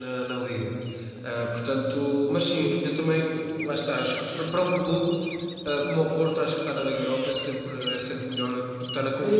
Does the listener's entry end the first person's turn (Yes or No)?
Yes